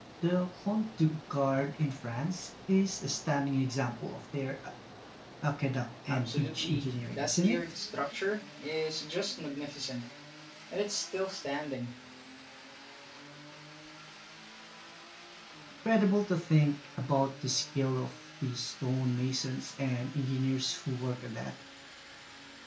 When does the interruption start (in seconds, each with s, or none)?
6.1 s